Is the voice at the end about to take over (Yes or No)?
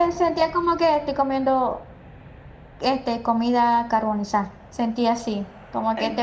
No